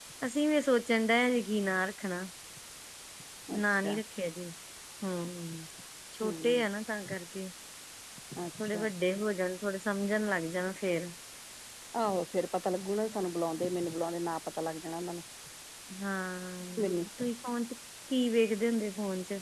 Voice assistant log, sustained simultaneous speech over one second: none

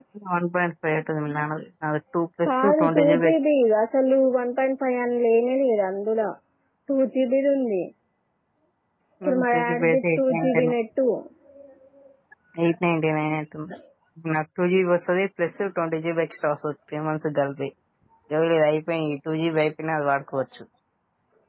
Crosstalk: present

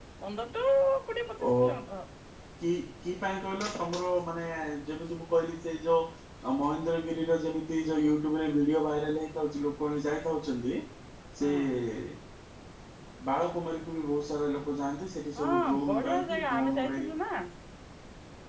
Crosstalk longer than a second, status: present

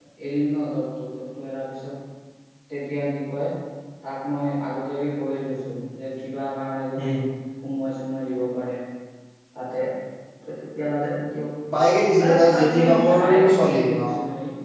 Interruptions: present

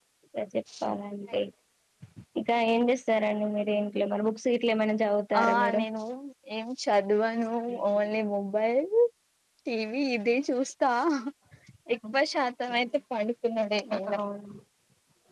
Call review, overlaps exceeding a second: none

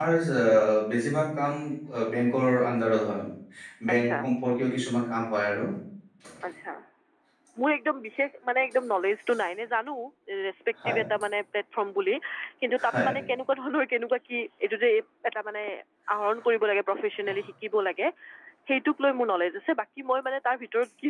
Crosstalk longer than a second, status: none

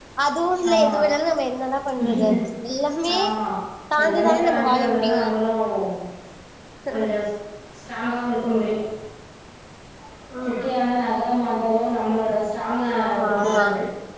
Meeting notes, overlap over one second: present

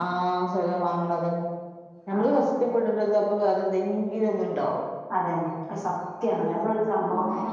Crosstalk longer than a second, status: none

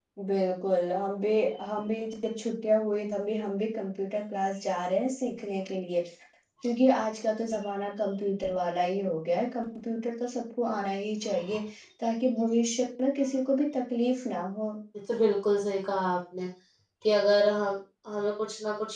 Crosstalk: none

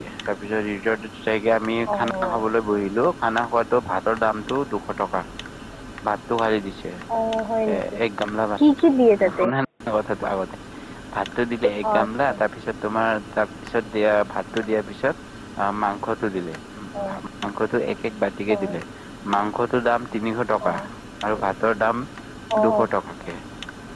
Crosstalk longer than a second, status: none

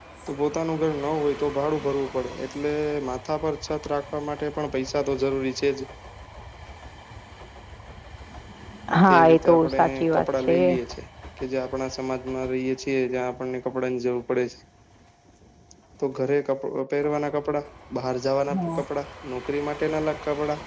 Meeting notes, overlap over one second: present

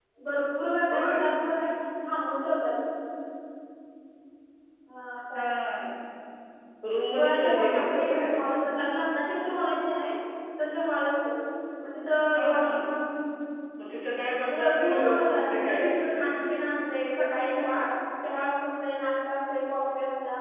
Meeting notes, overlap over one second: present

